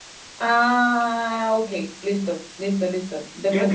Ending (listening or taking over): taking over